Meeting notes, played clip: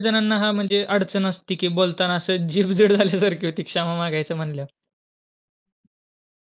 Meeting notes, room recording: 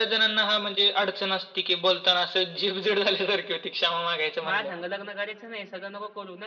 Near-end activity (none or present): present